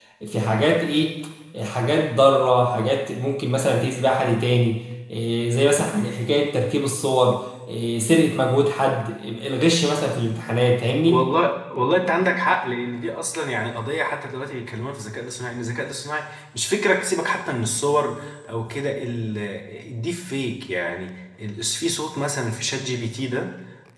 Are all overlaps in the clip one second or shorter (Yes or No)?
Yes